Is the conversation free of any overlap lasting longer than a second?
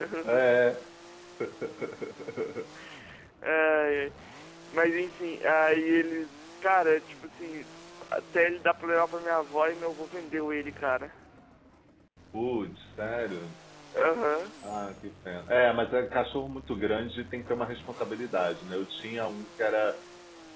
Yes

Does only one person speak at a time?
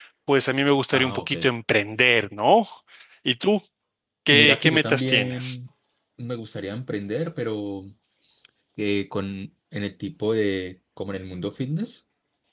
No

